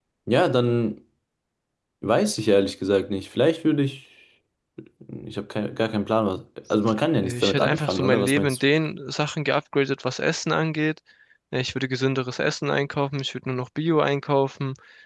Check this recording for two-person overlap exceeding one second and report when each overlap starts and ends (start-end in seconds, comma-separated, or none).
7.2-8.6